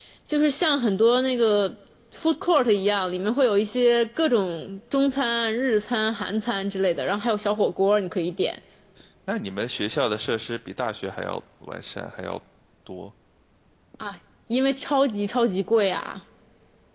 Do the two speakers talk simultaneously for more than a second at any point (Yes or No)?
No